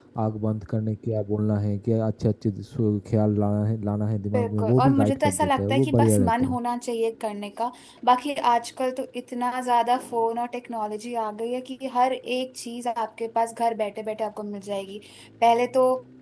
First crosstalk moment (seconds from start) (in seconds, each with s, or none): 4.3 s